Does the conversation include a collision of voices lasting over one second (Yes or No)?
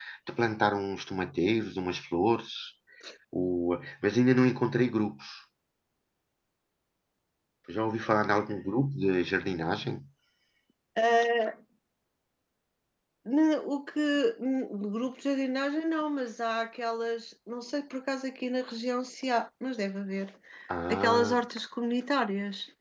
No